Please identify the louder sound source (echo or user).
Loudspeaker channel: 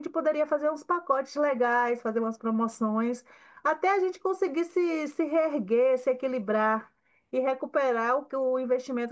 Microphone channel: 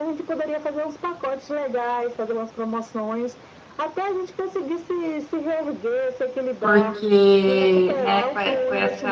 user